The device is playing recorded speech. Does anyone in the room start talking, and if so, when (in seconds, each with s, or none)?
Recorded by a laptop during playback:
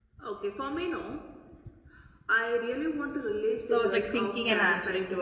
3.6 s